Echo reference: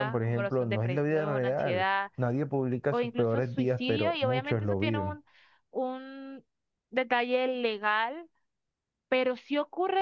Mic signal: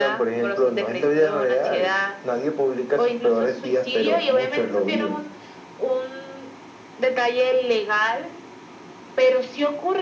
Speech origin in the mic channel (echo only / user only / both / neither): echo only